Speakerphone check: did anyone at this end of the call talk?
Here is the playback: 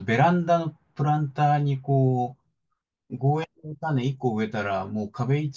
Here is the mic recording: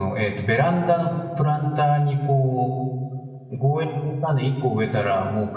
No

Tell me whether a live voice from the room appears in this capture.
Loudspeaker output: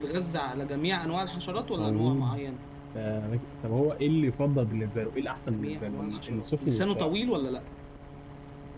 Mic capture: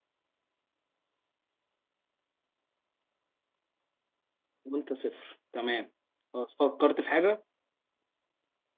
Yes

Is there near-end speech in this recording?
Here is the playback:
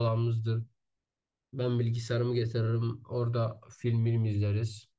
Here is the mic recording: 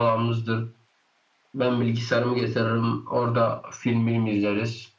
No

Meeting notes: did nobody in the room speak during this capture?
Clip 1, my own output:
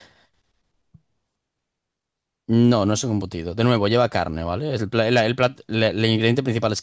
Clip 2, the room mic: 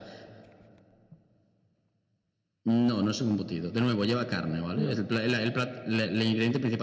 No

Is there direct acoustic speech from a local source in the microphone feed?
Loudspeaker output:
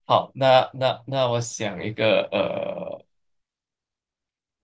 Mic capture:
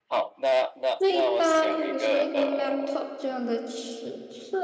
Yes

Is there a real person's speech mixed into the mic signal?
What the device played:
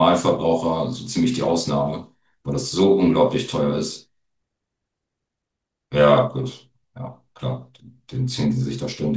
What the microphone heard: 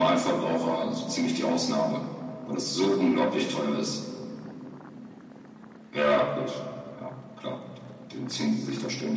No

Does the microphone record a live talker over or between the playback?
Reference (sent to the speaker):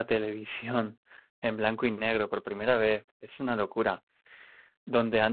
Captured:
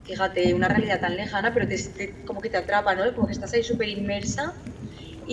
Yes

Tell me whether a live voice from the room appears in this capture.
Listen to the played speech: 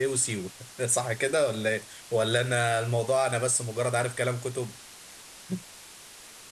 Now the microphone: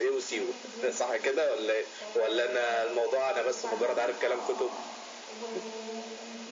Yes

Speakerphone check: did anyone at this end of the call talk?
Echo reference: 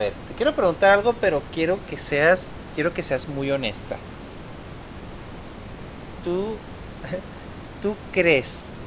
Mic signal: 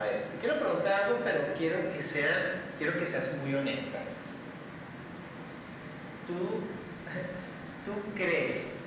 No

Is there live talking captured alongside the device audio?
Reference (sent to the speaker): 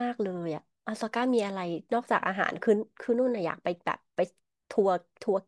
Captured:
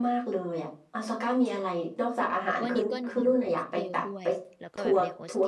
Yes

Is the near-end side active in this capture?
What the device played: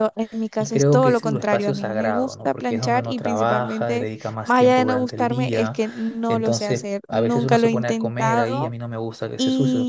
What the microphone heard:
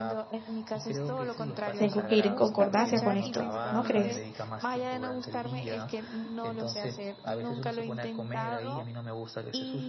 Yes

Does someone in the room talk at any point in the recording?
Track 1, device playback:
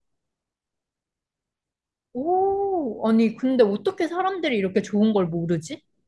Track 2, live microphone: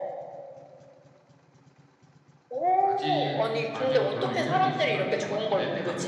Yes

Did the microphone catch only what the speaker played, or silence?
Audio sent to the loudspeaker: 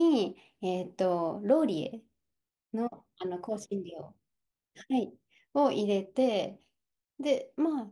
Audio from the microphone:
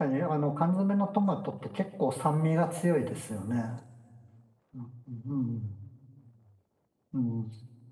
No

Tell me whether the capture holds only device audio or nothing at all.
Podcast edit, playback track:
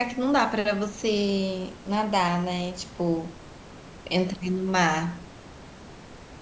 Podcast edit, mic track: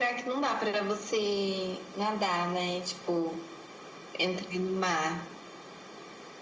Yes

